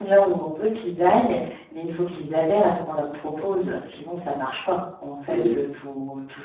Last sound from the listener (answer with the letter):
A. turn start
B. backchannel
B